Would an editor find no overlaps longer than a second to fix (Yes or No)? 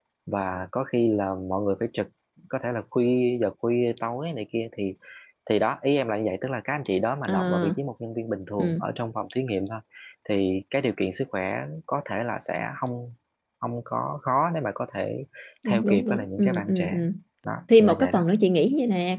No